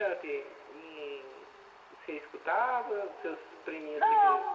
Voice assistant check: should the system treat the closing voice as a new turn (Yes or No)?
Yes